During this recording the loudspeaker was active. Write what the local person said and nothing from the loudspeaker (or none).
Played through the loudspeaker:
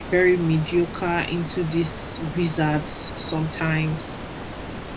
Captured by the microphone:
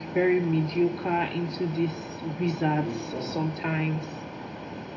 He will struggle.